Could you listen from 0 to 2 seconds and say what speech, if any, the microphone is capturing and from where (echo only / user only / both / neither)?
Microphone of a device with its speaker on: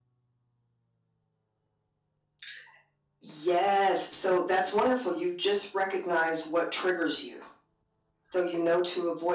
neither